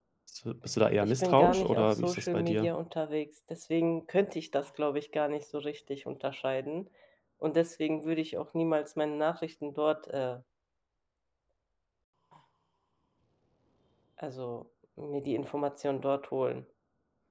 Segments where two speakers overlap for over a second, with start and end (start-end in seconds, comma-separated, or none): 1.0-2.7